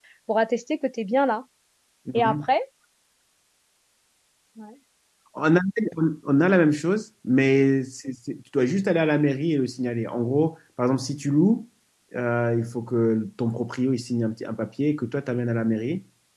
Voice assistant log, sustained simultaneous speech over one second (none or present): none